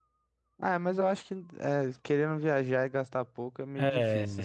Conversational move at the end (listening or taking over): taking over